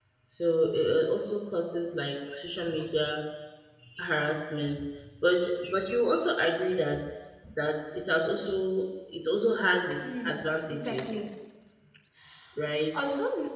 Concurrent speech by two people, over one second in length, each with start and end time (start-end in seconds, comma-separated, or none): 10.0-11.2